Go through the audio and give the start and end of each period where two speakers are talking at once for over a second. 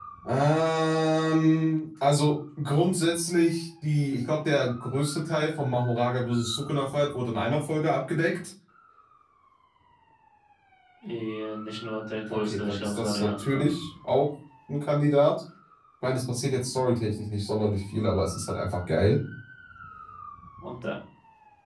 12.3-13.7

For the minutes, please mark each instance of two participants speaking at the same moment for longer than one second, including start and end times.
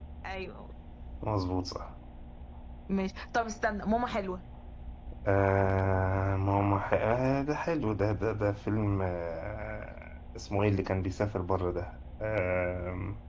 none

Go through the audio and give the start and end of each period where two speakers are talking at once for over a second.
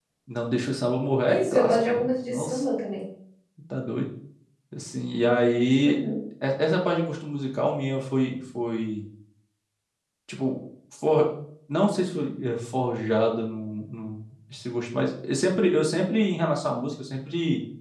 1.3-2.6

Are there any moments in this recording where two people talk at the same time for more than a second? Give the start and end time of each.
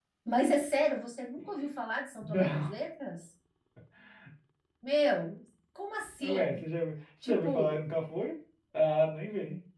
none

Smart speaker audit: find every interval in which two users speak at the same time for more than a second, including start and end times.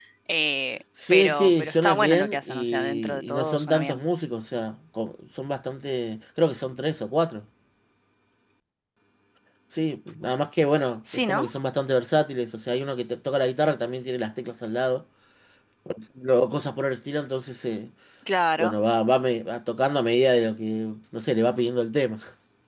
1.1-4.0

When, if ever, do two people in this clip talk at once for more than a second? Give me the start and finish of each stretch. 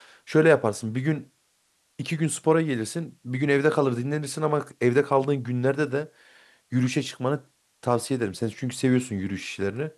none

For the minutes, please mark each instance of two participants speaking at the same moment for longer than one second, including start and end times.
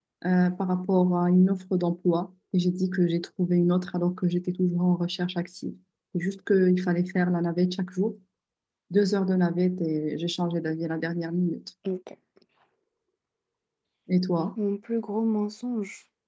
none

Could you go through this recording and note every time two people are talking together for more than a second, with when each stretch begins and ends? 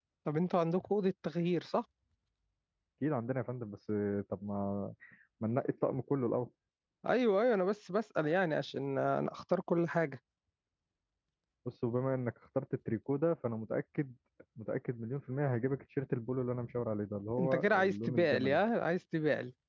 17.4-18.6

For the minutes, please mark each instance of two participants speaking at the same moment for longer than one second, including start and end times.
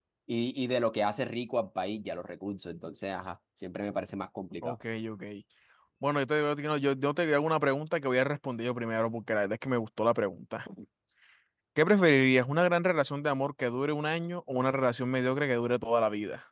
none

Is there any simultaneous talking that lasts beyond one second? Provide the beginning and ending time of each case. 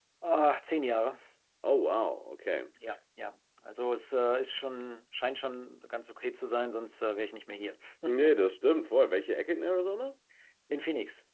none

